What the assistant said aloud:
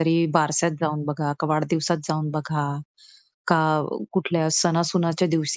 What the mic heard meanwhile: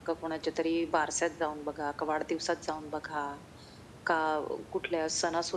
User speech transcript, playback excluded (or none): none